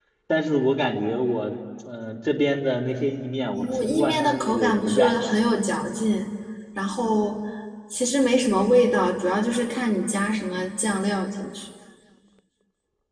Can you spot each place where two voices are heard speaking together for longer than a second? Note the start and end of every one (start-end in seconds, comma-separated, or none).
3.5-5.2